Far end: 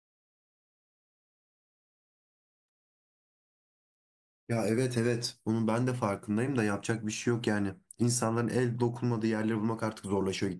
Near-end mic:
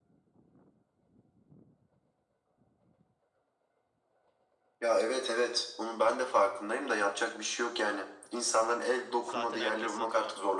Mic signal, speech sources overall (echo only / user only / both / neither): both